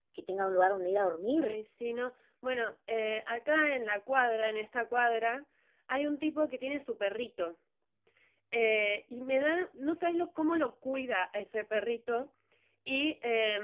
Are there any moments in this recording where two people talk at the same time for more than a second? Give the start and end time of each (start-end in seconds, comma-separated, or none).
none